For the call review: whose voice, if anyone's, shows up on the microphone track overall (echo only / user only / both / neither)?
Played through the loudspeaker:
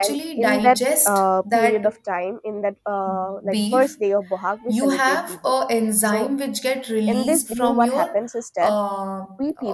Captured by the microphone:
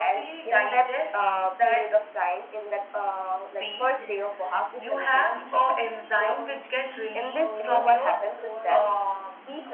both